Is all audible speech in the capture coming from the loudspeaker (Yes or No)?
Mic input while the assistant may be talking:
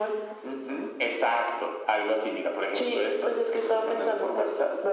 Yes